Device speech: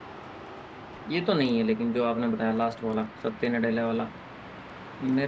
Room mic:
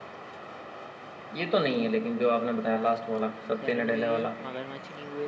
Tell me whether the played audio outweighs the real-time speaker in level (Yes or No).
Yes